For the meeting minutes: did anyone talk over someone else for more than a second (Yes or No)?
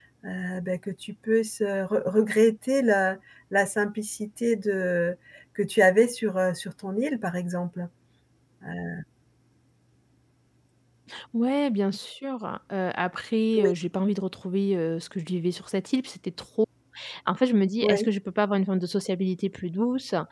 No